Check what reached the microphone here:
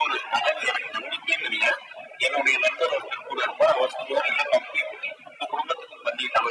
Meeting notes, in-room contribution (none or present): none